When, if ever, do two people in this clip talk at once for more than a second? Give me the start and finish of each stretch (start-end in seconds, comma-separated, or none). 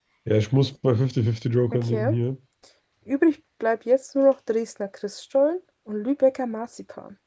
none